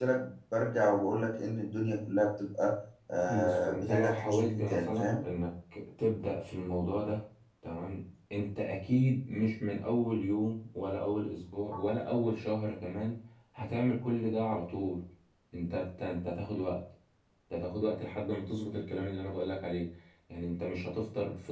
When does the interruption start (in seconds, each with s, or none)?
3.3 s